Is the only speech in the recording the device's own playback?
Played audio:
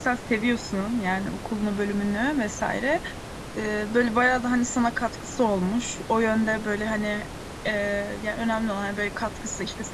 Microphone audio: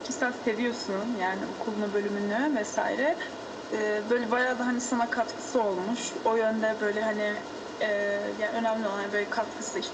Yes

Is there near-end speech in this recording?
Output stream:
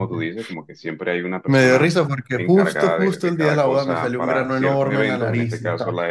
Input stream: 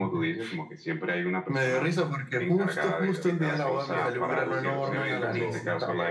Yes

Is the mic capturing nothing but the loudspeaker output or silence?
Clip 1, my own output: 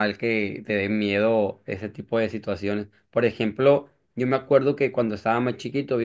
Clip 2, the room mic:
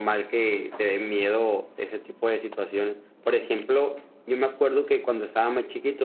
Yes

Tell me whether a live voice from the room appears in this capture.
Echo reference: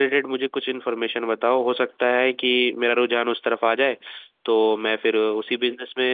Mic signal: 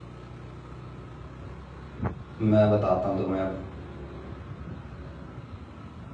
Yes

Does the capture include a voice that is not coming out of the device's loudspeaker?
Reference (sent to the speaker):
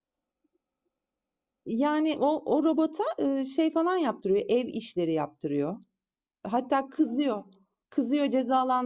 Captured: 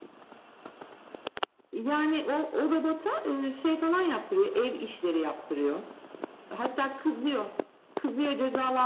No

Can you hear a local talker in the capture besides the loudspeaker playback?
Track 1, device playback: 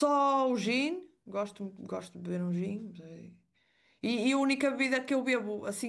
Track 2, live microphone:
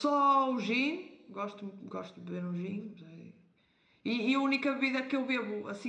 No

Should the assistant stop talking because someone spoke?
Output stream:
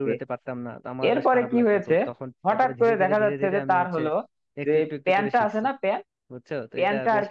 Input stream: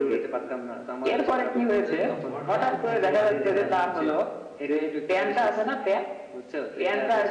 Yes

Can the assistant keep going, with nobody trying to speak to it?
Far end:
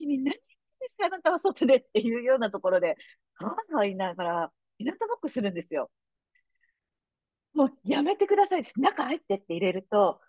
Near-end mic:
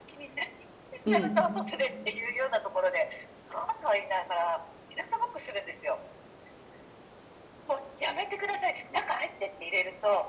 No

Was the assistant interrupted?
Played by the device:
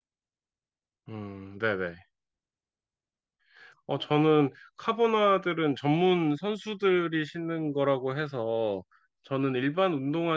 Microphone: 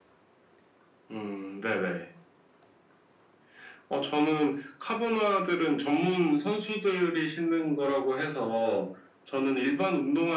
No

